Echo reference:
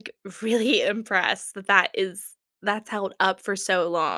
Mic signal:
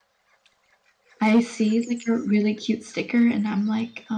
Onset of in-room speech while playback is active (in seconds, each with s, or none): 1.2 s